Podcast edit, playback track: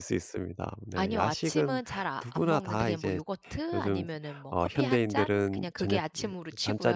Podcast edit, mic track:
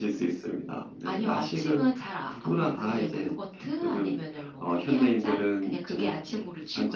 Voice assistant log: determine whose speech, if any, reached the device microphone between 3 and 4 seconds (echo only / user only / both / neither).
echo only